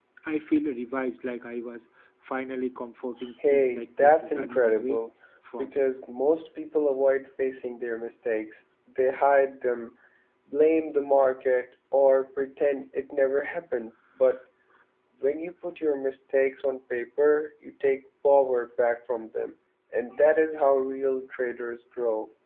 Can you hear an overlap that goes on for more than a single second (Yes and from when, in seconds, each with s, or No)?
Yes, from 3.5 s